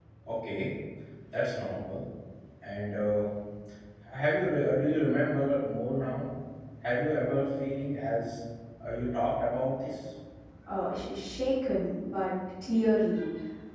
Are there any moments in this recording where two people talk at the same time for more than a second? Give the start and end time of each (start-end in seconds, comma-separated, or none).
none